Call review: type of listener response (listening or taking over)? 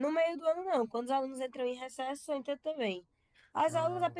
listening